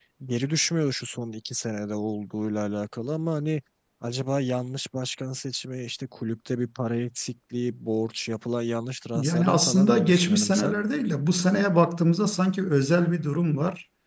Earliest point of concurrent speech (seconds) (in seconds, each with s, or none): 9.2 s